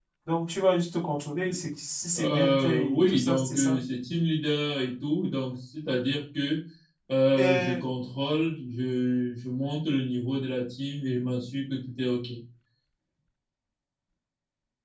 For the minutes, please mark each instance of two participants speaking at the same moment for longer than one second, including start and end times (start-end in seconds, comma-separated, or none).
2.2-3.8